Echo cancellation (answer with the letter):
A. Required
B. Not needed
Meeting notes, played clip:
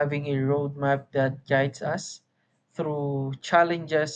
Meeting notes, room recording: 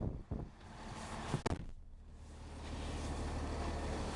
B